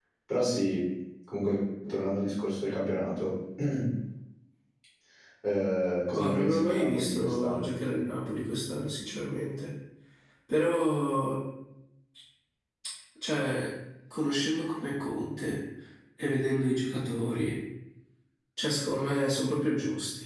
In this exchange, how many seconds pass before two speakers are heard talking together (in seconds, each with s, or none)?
6.1 s